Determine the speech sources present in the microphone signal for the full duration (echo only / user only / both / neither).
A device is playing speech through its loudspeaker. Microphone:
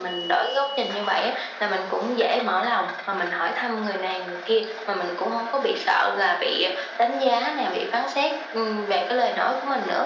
echo only